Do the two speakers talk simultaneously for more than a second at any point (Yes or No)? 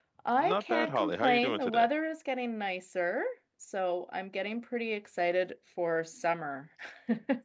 Yes